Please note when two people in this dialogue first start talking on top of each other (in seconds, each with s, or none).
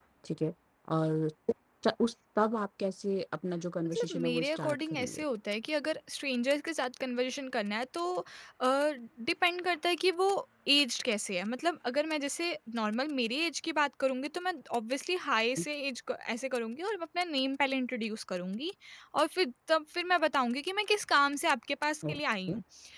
3.9 s